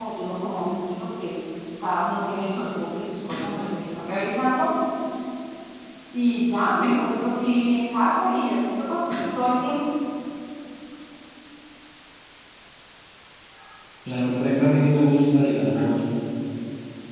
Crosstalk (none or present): none